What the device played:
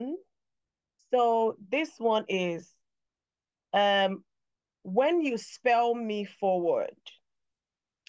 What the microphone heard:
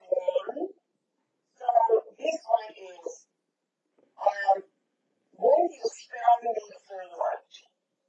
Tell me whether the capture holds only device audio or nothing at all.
Yes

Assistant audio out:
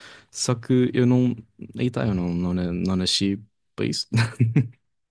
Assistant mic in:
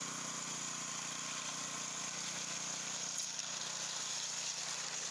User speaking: No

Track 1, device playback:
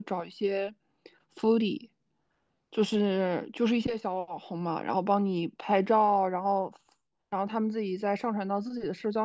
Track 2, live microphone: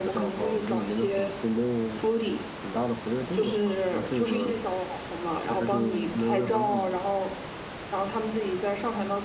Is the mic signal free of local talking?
No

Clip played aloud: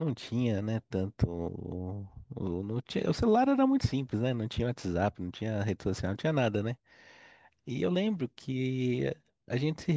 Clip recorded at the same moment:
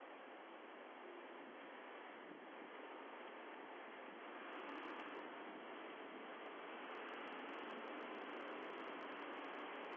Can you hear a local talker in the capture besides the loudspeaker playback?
No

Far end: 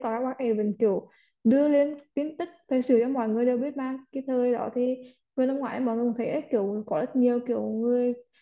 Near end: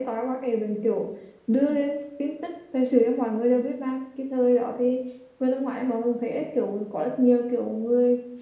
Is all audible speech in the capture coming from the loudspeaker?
Yes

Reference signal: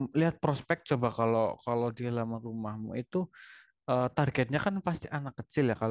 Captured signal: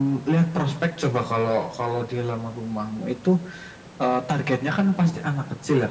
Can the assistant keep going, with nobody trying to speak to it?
Yes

